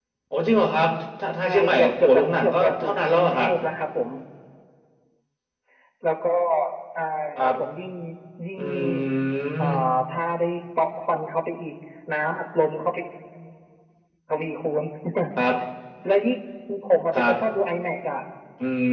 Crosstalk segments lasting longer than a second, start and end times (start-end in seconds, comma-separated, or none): 1.4-3.5